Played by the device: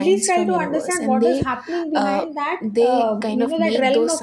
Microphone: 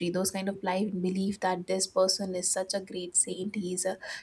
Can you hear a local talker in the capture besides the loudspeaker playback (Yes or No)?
Yes